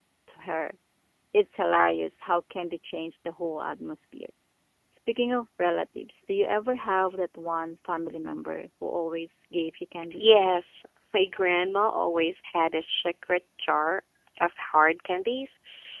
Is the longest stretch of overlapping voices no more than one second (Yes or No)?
Yes